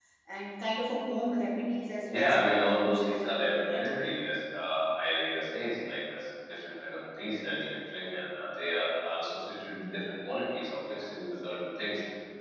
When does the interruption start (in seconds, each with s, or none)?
2.1 s